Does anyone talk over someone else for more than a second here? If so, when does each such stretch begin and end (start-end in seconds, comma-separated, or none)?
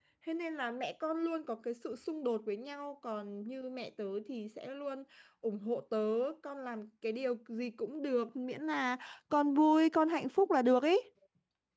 none